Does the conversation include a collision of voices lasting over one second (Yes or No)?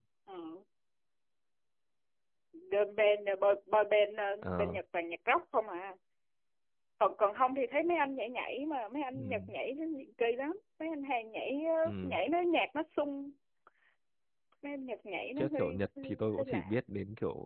Yes